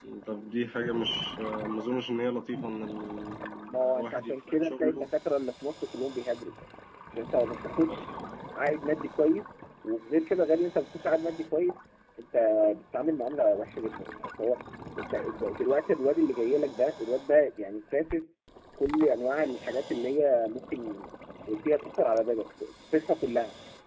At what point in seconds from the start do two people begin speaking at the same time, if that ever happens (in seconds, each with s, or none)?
3.8 s